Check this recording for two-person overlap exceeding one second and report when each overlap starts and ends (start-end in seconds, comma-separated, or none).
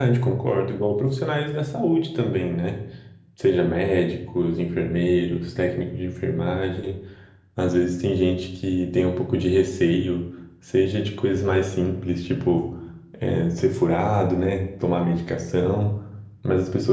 none